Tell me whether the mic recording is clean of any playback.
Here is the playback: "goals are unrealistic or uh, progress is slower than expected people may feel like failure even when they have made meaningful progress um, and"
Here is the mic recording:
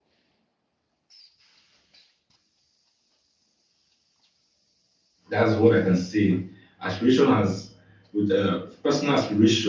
Yes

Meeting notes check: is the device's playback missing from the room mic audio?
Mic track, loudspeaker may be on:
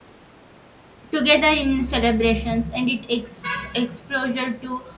Yes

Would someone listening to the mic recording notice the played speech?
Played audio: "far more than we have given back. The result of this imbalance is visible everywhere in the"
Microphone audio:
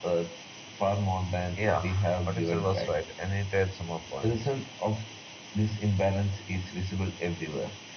Yes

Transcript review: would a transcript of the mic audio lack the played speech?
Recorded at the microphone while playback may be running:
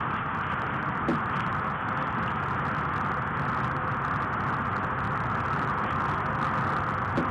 Yes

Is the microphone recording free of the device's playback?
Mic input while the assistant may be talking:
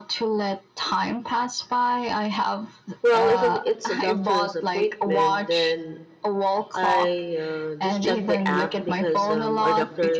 No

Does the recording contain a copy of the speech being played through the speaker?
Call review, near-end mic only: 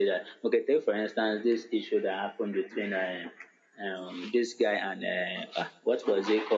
Yes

